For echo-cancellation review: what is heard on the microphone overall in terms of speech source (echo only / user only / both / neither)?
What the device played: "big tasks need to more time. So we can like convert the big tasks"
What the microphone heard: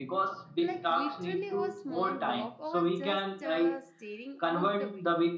both